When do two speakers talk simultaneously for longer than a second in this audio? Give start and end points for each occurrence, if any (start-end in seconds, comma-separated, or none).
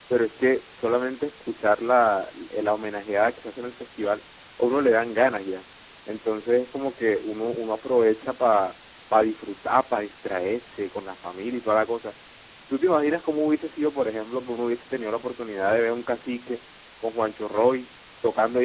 none